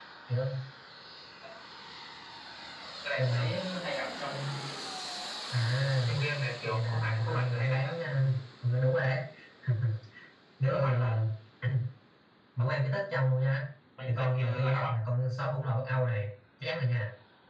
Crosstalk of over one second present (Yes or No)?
Yes